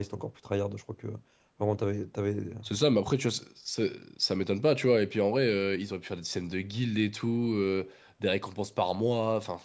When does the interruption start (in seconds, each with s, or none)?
none